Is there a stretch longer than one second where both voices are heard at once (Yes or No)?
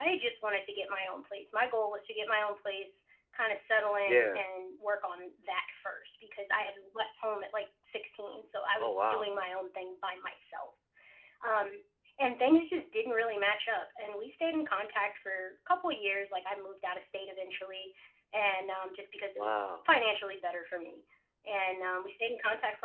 No